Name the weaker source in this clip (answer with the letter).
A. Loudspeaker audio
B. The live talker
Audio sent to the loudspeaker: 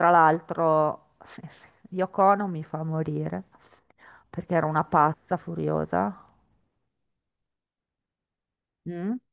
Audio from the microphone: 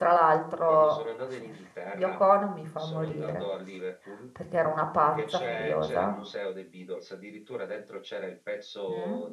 B